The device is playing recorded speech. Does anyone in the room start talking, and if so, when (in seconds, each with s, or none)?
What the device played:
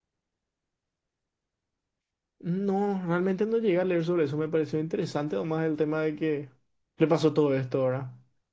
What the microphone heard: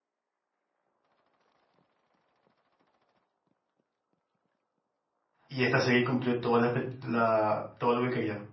5.5 s